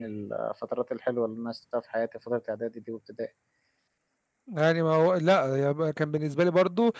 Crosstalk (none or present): none